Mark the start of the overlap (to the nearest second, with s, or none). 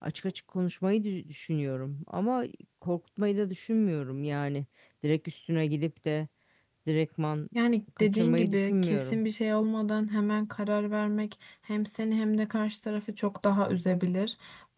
8 s